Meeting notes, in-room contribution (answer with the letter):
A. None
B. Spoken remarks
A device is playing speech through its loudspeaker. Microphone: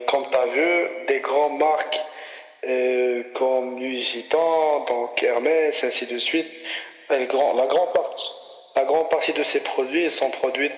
A